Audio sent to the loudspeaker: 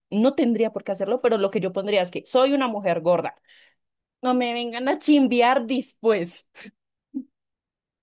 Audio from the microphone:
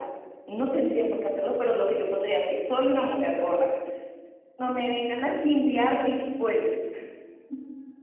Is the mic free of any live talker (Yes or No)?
Yes